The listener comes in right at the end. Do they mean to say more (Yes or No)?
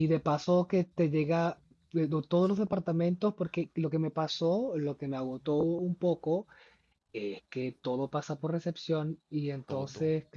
No